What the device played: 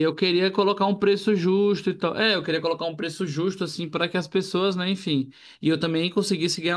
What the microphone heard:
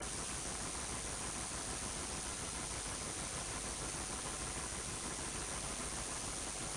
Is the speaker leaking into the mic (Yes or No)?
No